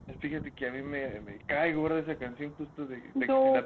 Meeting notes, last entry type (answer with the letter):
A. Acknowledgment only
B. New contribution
A